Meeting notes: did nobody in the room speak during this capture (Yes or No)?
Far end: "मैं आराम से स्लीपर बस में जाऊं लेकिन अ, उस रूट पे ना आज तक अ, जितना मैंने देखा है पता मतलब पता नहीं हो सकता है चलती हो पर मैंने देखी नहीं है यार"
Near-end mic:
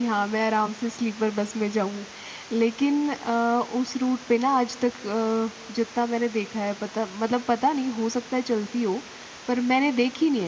Yes